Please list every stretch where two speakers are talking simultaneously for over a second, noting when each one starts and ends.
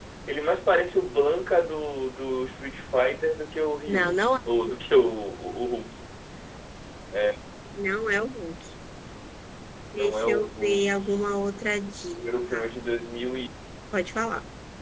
9.9-11.2

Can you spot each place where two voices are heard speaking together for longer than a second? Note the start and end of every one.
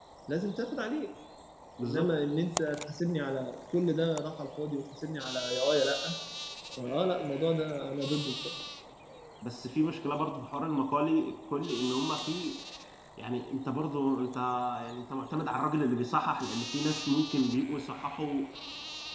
none

